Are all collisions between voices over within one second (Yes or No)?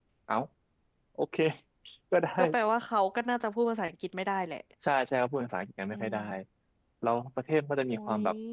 Yes